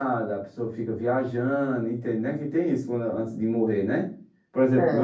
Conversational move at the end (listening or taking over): taking over